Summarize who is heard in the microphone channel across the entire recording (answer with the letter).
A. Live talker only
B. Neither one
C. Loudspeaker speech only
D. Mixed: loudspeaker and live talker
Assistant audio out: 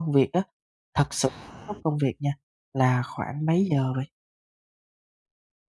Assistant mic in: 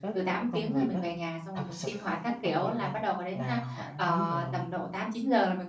D